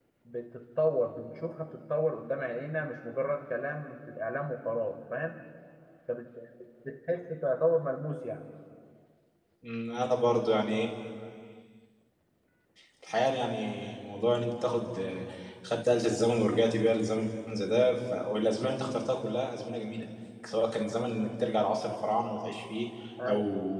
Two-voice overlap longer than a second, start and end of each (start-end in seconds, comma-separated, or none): none